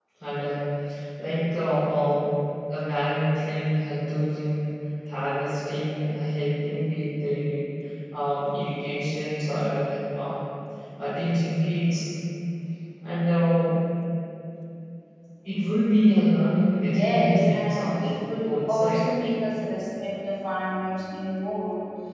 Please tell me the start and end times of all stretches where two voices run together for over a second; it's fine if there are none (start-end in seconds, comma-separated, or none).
16.8-19.1